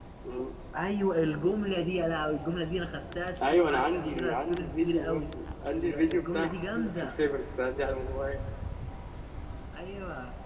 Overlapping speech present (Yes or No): Yes